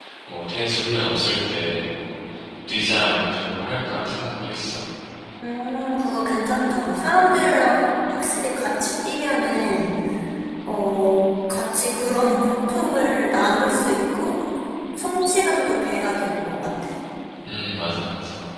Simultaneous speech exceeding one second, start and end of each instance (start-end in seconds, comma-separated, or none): none